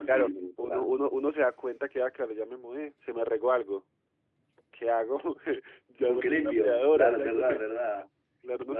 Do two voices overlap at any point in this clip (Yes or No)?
Yes